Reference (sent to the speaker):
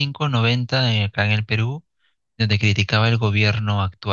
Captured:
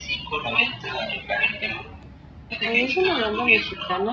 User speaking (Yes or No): Yes